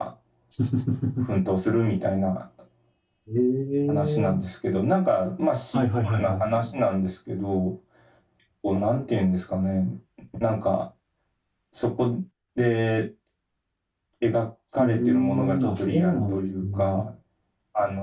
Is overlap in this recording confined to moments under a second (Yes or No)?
No